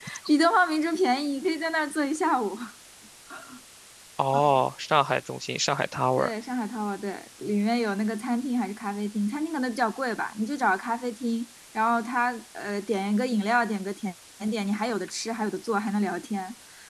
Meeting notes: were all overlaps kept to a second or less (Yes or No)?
Yes